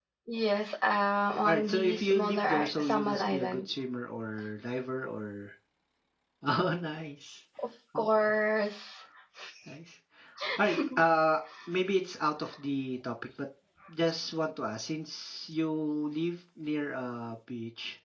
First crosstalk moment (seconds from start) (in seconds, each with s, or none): 1.4 s